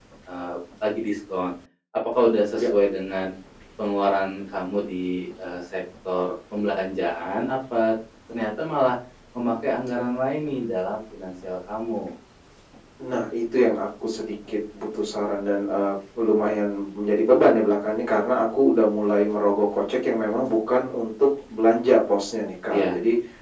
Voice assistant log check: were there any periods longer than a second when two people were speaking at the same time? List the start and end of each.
none

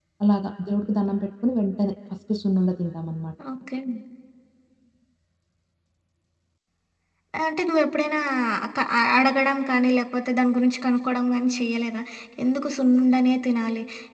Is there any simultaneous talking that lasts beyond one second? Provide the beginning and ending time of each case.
none

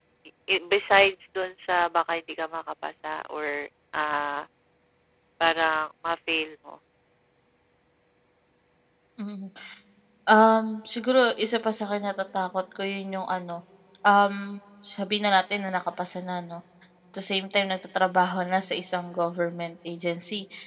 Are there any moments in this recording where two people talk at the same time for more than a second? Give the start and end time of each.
none

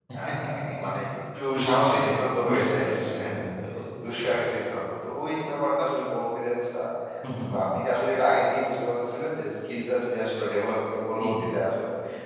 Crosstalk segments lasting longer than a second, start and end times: 1.5-3.3

